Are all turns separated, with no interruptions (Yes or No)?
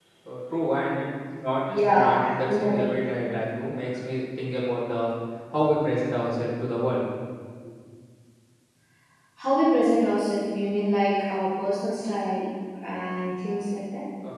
No